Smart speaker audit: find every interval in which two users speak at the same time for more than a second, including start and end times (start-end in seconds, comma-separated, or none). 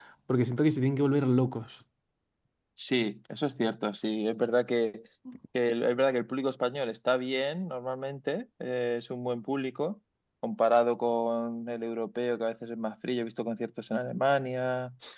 none